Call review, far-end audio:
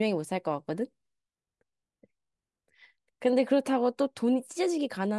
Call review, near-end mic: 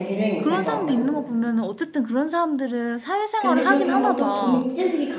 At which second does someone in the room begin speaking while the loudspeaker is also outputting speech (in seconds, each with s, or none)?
0.4 s